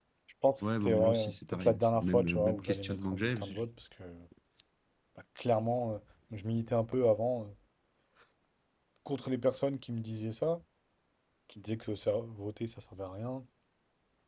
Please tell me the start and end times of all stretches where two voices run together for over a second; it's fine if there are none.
0.6-3.7

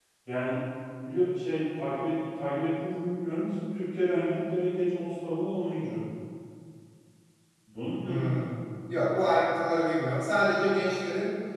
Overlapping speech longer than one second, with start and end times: none

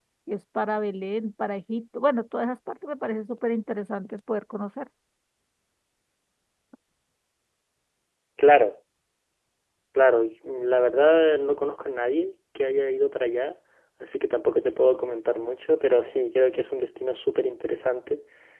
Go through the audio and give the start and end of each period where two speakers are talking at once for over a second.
none

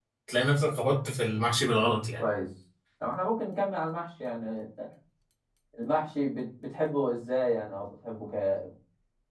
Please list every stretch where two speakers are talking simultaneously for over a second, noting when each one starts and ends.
none

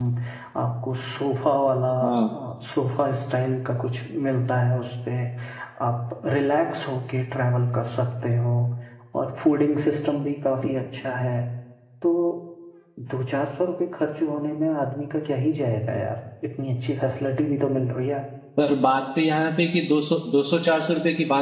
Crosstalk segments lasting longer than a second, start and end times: none

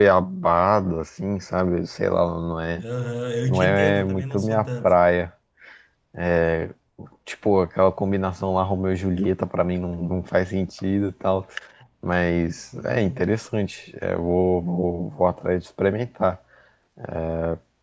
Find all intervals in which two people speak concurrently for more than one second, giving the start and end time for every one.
3.4-5.0

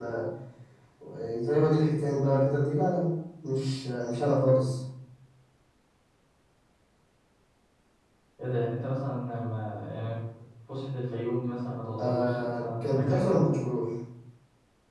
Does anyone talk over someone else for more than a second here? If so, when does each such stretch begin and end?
12.0-13.5

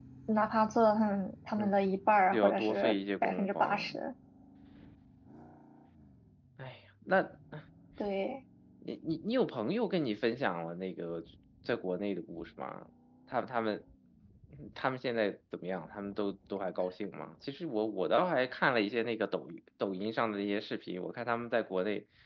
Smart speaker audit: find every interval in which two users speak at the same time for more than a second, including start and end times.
2.3-4.0

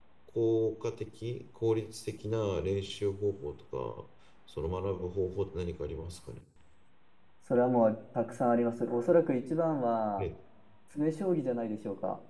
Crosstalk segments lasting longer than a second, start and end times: none

